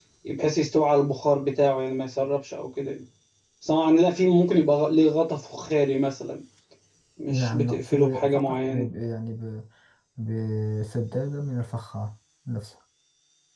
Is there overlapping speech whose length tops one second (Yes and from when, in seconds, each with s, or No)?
Yes, from 7.3 s